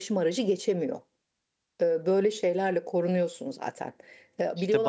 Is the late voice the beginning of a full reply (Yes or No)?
Yes